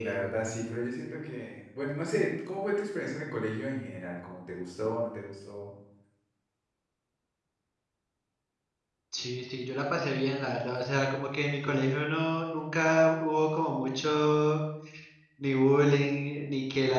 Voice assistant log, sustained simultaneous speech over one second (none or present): none